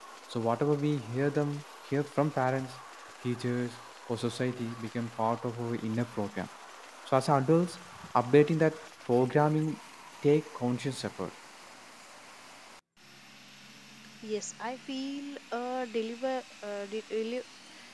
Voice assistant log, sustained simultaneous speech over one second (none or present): none